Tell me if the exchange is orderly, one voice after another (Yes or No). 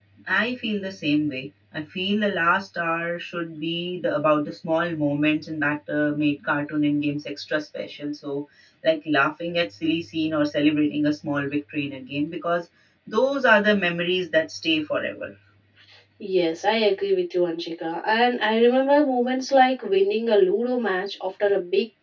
Yes